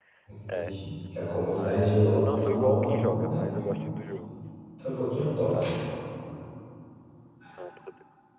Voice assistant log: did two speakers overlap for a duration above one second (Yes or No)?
Yes